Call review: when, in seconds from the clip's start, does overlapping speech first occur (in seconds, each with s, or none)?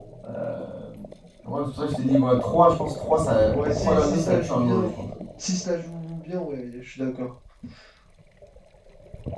3.5 s